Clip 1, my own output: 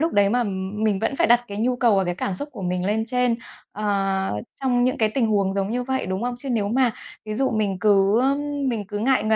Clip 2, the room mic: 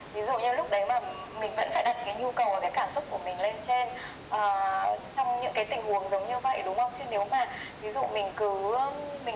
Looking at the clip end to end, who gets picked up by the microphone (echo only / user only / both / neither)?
echo only